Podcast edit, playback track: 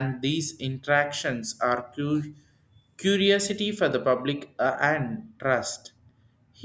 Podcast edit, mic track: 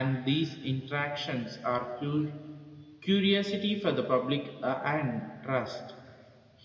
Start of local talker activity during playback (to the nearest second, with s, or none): none